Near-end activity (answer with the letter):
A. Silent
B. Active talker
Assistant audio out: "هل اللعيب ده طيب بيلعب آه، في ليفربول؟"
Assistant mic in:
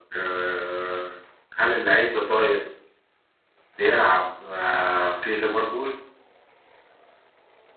A